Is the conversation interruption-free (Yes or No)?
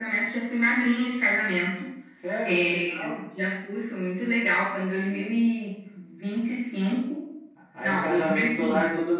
No